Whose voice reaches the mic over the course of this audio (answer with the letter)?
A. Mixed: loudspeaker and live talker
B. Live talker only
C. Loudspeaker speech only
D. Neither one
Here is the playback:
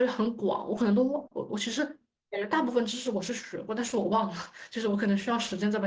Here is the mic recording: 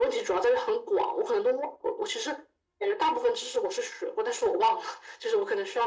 C